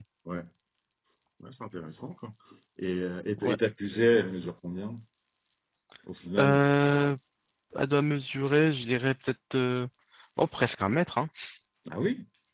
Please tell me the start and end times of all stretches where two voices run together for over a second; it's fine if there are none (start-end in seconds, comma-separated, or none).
none